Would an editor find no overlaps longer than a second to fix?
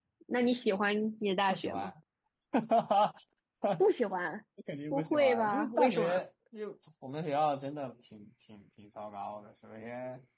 No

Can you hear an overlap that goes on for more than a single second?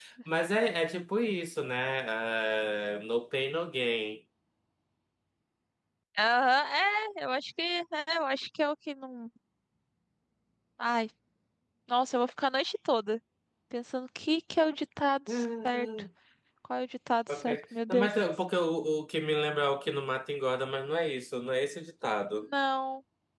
No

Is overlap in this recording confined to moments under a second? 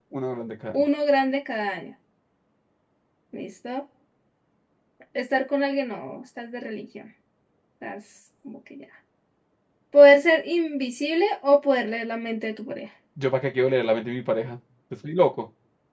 Yes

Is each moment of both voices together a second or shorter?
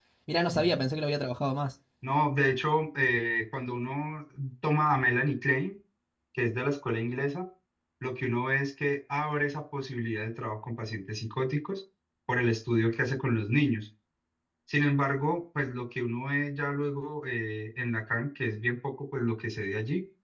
Yes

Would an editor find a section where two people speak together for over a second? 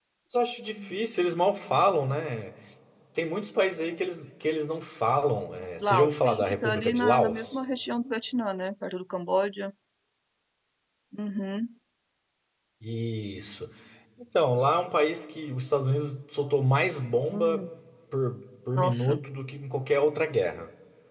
Yes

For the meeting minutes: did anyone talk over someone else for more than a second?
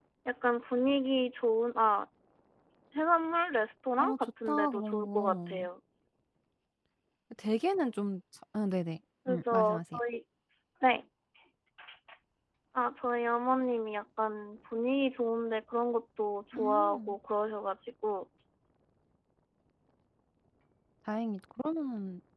Yes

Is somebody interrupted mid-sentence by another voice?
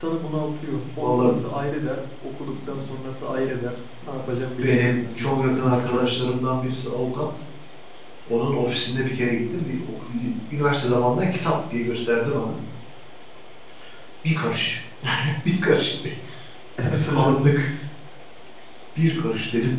Yes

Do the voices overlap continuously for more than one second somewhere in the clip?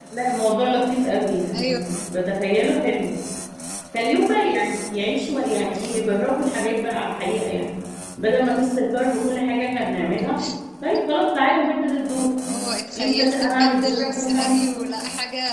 Yes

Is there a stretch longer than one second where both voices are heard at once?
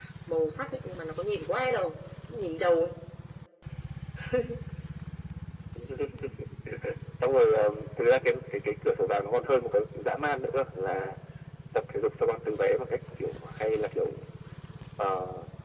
No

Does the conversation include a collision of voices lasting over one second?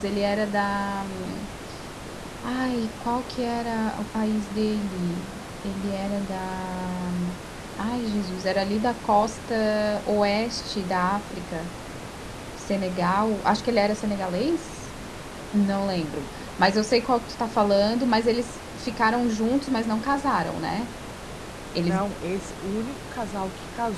No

